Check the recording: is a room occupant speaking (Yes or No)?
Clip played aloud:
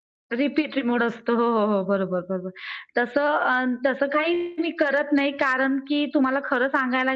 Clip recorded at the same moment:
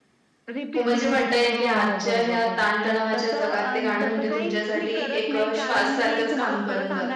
Yes